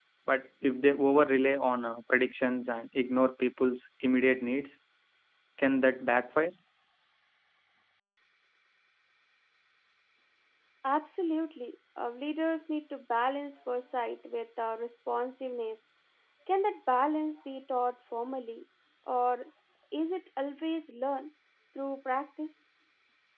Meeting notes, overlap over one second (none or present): none